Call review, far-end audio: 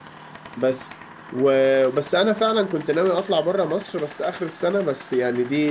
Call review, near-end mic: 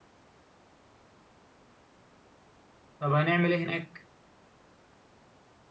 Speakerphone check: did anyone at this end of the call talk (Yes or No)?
Yes